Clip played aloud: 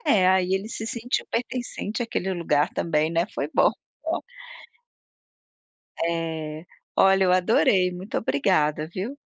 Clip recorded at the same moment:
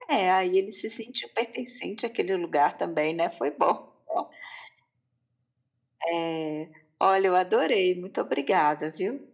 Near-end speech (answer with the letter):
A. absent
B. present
A